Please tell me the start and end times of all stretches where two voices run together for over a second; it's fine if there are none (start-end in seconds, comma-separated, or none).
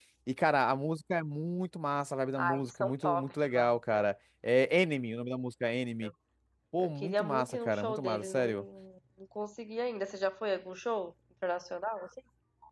2.4-3.7, 6.8-8.7